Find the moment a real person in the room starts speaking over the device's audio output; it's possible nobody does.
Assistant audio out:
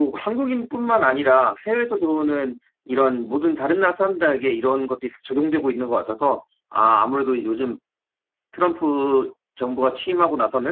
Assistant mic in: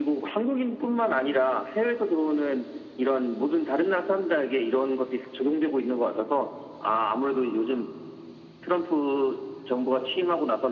none

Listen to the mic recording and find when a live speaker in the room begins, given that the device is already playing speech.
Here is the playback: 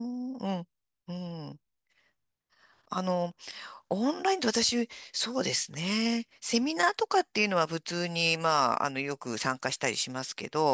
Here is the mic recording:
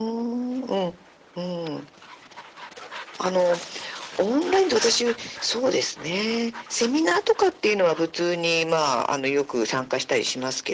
none

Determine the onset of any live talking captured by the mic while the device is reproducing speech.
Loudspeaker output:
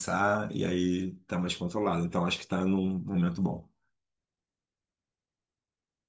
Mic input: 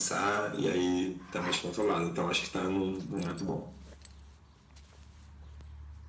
none

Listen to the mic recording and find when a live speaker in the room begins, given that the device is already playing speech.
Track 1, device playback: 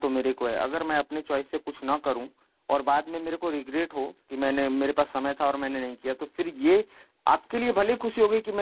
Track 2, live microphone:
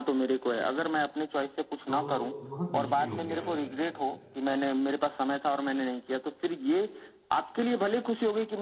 2 s

